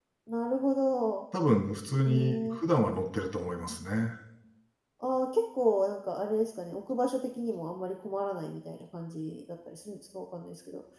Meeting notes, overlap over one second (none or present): none